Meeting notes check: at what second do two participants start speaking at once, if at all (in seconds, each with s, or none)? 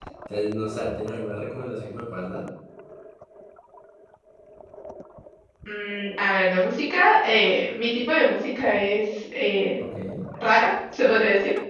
none